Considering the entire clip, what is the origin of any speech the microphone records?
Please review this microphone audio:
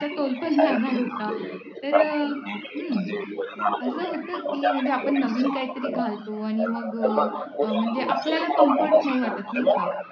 both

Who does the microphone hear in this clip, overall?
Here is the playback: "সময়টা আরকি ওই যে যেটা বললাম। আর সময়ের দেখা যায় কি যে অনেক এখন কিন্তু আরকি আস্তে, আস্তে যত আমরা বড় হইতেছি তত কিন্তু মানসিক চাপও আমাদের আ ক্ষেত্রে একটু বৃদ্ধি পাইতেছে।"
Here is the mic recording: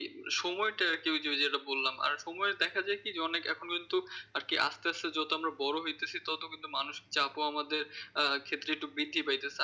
echo only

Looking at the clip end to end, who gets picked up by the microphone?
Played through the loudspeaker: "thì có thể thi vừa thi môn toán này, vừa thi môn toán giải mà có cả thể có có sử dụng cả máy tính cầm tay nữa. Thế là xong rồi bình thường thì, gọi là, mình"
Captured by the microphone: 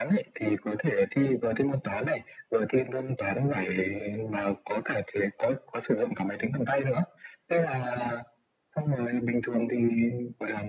echo only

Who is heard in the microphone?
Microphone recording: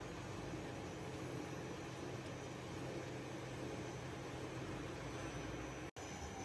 neither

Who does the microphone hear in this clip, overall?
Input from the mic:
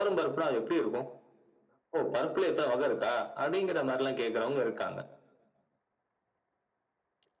echo only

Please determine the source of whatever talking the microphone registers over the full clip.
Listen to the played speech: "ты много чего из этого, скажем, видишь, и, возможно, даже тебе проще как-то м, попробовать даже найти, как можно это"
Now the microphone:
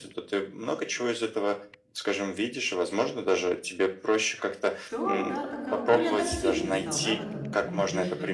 both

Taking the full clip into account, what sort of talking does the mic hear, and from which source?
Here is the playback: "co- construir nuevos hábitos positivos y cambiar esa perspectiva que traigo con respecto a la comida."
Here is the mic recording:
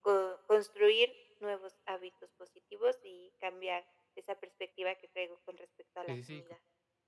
both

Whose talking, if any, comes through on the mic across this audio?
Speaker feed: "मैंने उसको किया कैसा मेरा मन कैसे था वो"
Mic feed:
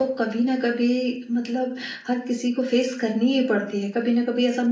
user only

